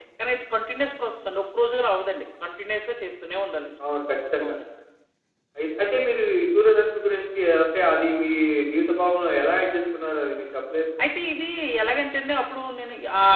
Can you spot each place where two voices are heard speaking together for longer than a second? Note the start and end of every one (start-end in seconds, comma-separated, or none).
none